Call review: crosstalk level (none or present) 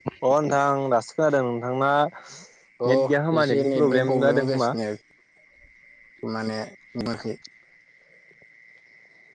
present